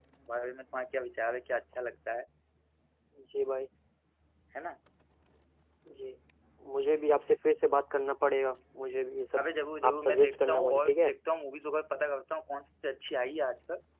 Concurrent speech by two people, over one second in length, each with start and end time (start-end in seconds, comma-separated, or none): 9.9-11.1